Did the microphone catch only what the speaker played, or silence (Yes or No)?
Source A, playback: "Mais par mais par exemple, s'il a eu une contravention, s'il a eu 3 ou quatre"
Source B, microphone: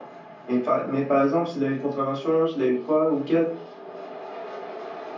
Yes